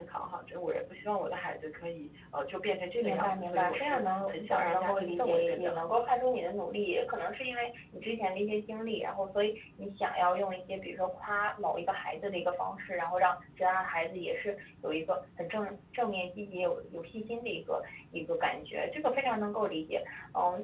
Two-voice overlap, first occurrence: 3.0 s

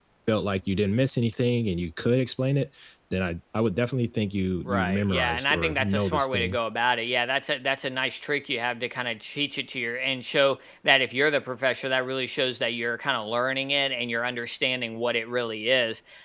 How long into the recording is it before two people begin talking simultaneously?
4.7 s

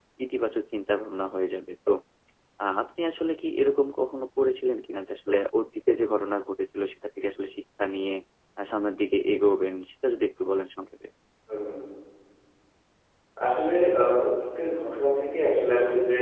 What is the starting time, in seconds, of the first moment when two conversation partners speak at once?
none

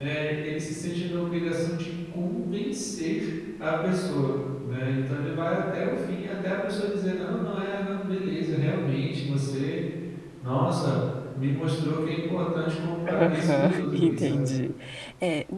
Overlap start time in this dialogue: 13.1 s

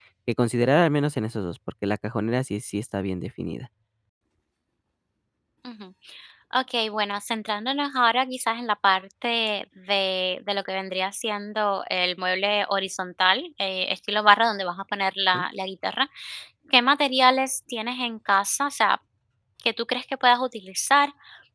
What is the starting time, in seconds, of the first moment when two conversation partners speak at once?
none

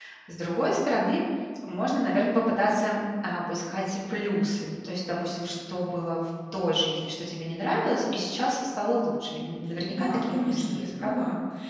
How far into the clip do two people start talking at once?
9.9 s

